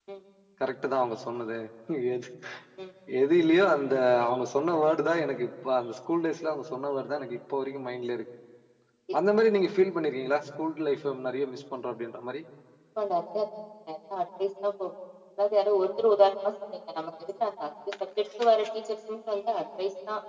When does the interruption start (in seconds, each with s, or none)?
none